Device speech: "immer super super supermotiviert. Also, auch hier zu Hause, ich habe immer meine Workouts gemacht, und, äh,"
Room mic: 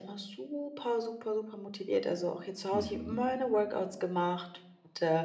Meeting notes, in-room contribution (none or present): present